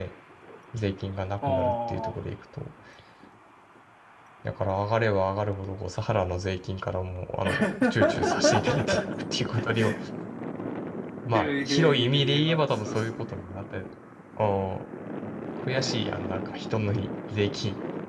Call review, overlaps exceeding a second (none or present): present